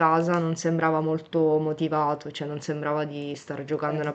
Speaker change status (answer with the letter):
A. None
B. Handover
A